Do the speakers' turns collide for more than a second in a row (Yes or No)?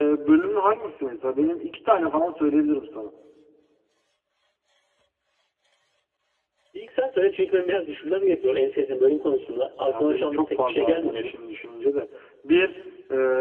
Yes